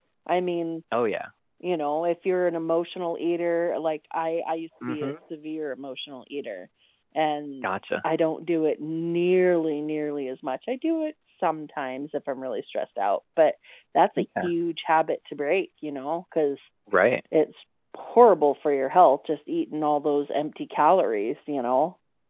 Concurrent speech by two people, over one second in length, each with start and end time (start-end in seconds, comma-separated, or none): none